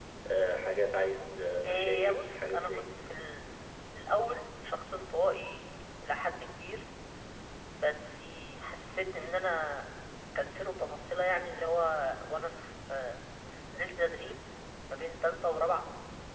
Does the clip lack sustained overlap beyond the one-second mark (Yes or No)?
No